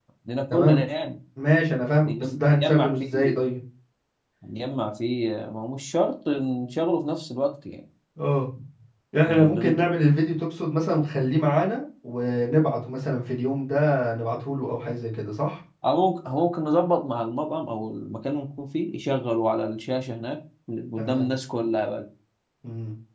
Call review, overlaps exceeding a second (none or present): present